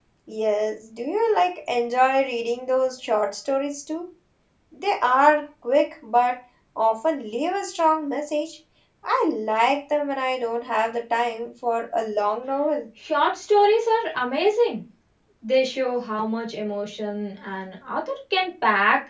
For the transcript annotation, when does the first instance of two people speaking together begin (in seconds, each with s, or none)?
none